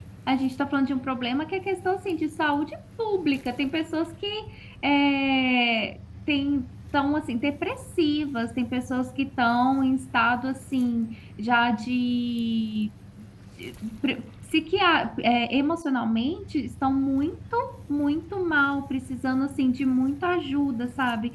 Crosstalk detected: No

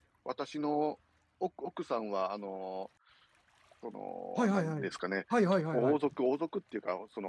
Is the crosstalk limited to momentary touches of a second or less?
Yes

